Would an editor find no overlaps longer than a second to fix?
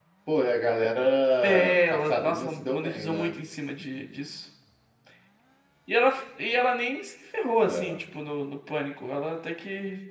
No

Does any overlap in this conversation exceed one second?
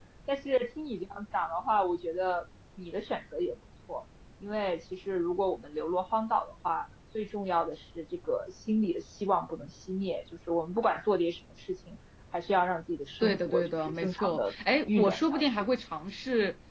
Yes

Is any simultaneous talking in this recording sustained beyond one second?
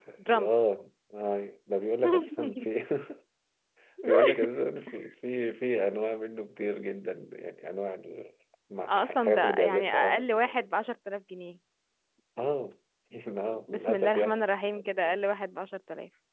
Yes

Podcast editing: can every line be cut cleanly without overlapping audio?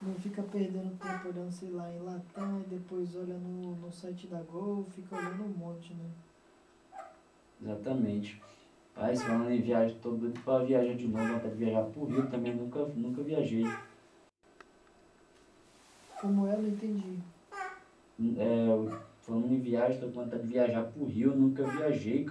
Yes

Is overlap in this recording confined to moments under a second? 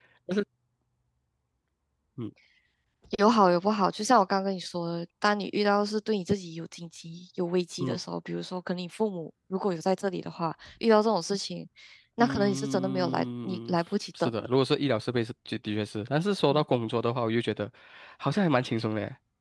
No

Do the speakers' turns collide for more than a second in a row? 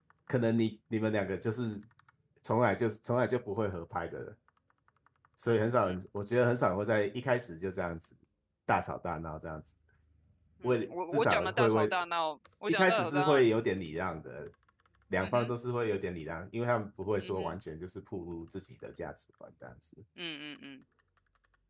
Yes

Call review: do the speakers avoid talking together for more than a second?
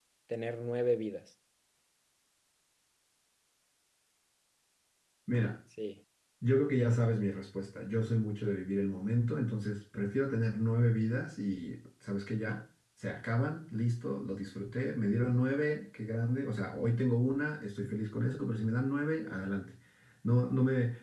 Yes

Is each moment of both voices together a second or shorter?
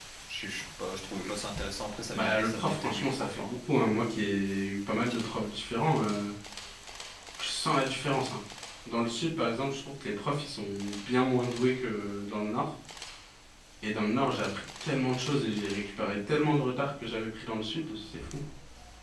No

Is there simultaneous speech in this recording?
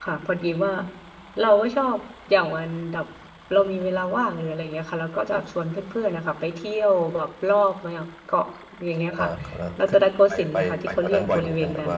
Yes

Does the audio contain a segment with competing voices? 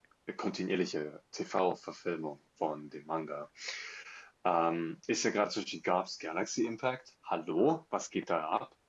No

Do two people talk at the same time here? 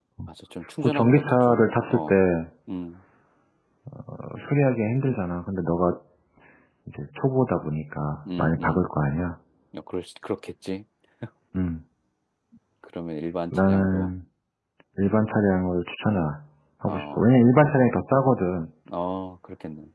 Yes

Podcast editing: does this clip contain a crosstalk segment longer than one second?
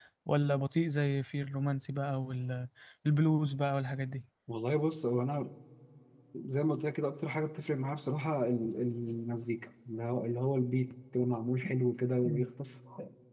No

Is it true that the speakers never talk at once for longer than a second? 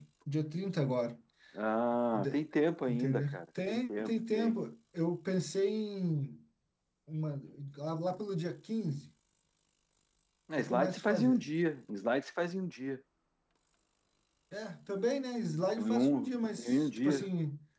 No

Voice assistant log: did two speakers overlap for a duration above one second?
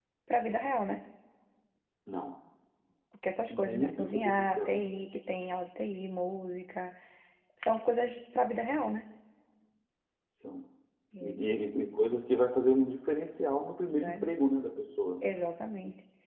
Yes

